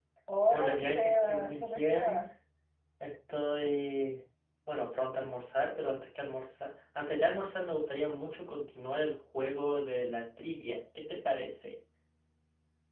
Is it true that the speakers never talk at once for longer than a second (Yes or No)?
No